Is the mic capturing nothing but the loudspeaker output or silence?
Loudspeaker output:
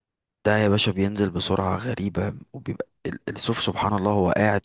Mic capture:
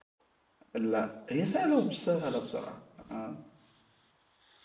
No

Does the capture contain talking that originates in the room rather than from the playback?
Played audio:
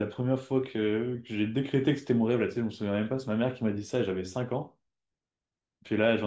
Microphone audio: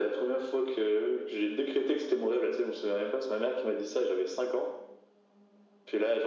No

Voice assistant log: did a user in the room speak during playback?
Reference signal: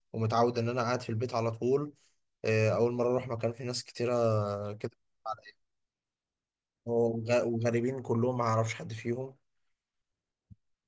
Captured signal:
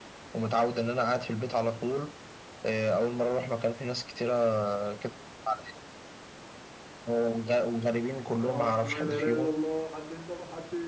Yes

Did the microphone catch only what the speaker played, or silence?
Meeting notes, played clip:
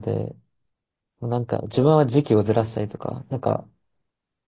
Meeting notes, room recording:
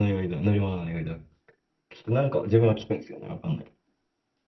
No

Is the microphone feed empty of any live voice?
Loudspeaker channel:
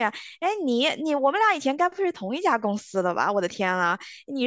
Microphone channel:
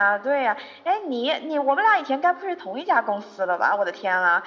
Yes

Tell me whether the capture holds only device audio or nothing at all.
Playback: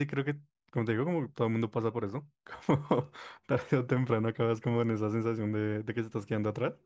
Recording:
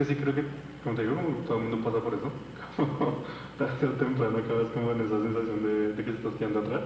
Yes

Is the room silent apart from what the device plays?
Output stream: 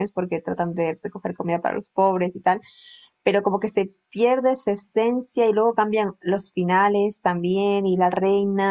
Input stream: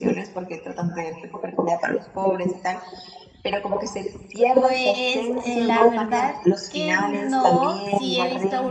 No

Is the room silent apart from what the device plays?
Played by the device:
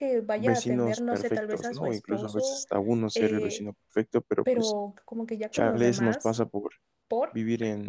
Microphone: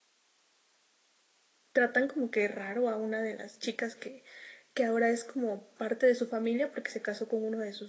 No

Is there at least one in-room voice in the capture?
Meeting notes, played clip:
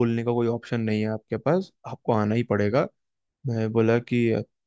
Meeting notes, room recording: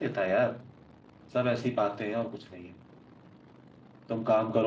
Yes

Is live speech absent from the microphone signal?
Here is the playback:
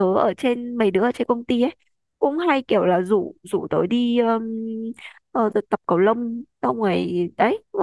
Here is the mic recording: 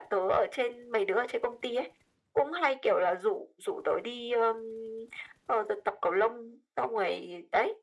Yes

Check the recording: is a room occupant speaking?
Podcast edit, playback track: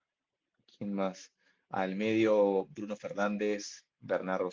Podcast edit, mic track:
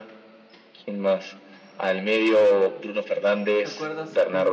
Yes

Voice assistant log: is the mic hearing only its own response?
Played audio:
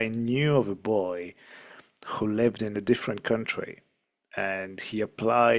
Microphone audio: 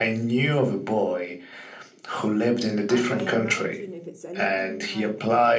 No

